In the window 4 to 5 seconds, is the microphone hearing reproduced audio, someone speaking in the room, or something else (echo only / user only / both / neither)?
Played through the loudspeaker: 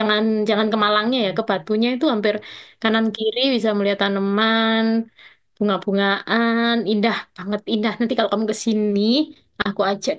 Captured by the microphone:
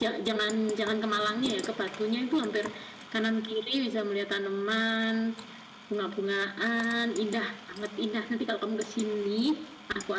echo only